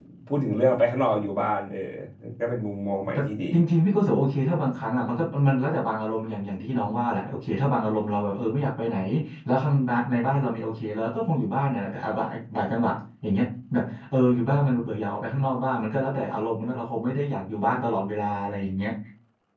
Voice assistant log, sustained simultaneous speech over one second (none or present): none